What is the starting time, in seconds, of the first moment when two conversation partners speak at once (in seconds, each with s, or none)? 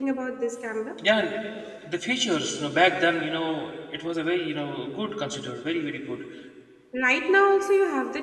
none